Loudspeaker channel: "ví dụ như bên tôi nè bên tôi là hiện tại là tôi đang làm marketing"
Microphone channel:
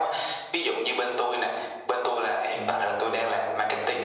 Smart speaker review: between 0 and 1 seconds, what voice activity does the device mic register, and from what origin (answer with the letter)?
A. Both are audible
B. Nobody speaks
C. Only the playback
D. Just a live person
C